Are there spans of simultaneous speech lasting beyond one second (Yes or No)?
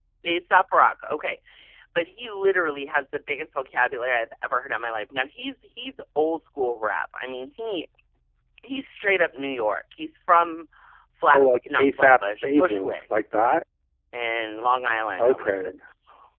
Yes